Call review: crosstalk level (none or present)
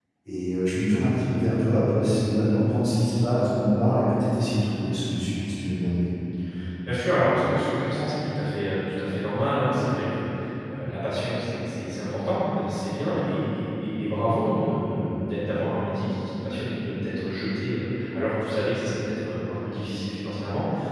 none